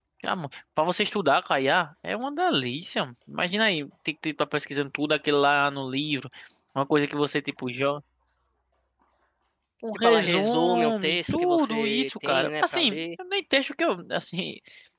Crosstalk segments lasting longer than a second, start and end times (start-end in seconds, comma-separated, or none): 9.9-13.0